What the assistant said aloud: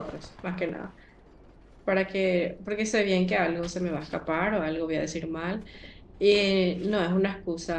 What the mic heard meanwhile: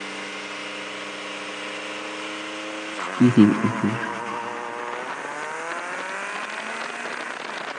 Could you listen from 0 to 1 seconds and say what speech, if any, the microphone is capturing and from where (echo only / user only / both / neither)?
neither